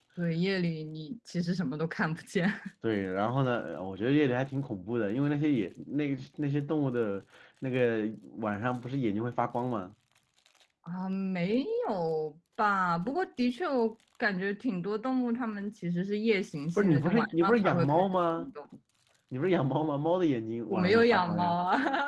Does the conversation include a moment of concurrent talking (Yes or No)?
Yes